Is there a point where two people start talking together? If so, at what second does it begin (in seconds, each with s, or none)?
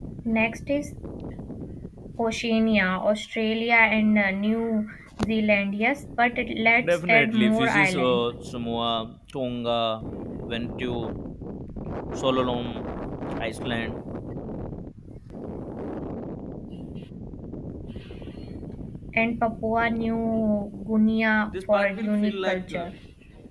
6.8 s